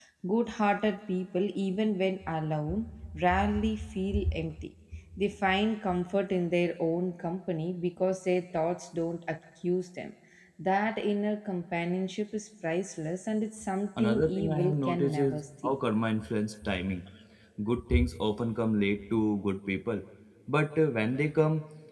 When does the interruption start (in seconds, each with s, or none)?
14.0 s